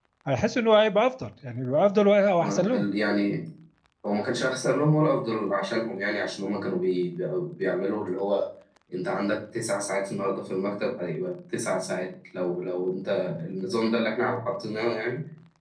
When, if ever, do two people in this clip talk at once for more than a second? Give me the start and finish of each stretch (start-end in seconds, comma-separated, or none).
none